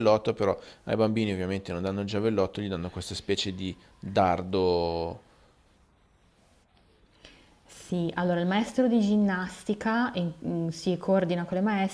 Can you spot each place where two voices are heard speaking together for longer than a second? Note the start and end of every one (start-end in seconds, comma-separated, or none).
none